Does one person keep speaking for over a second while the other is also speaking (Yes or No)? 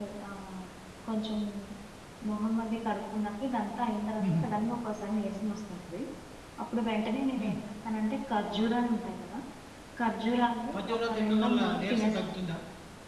Yes